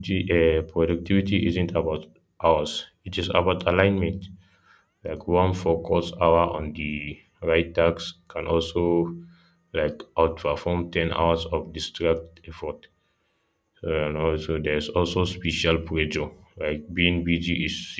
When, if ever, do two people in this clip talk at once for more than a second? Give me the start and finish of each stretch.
none

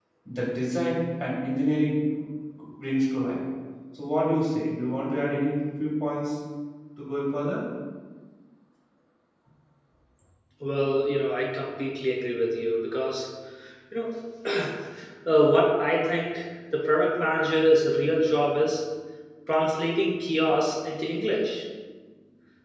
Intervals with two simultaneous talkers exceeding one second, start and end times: none

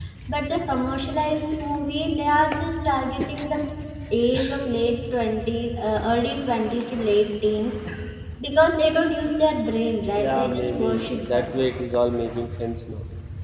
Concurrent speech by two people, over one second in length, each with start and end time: 10.2-11.6

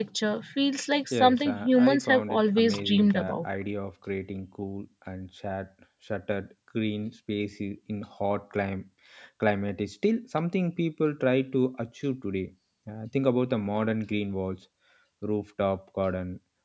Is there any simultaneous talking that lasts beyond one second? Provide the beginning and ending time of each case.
1.1-3.4

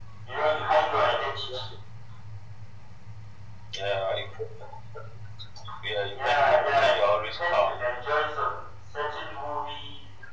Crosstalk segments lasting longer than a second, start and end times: 6.1-7.8

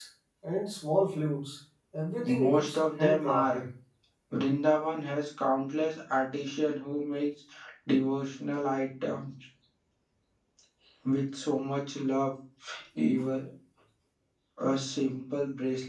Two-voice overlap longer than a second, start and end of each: 2.3-3.6

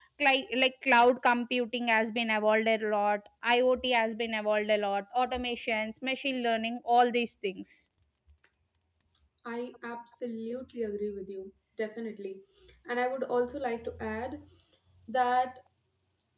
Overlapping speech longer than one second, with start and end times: none

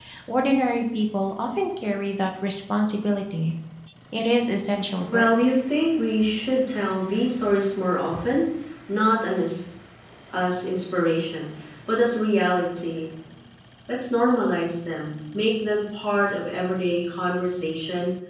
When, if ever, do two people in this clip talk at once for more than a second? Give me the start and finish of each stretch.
none

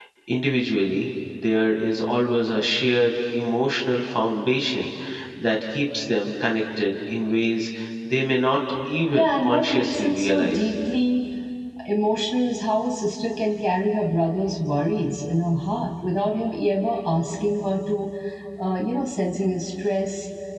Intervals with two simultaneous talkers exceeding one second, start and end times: 9.1-10.6

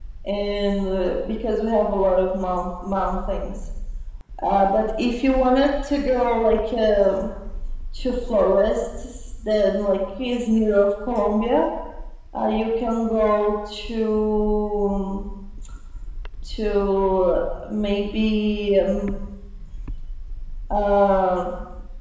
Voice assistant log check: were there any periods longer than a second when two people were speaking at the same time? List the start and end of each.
none

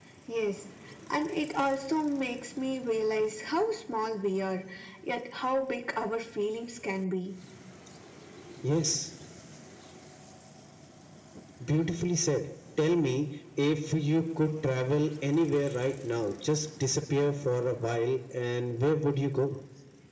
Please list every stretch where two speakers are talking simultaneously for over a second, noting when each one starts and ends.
none

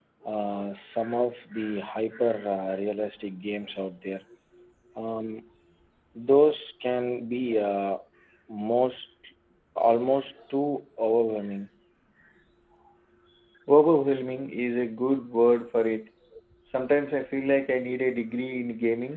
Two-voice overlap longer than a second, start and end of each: none

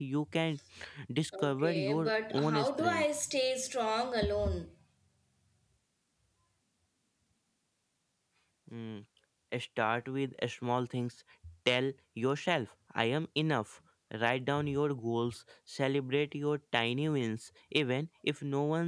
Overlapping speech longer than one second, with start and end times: 1.4-3.0

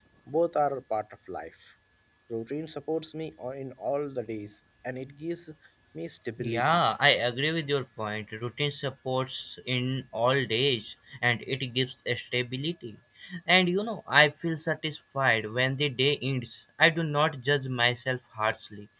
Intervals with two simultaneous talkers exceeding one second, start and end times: none

